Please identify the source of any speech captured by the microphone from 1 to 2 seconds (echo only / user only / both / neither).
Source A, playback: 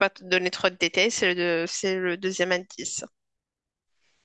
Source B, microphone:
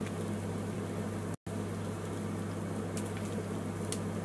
neither